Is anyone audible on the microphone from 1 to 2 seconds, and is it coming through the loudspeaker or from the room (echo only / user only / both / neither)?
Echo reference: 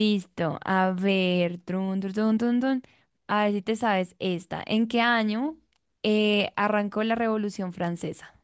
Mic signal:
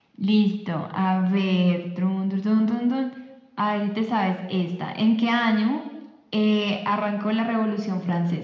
echo only